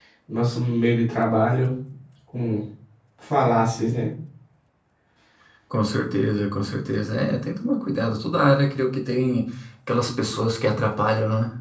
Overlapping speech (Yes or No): No